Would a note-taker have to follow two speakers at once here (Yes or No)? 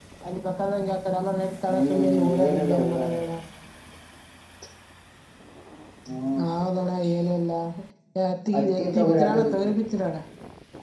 Yes